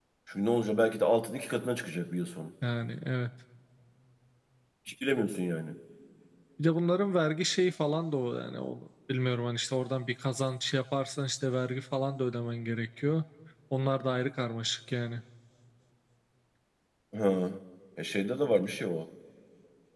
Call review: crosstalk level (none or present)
none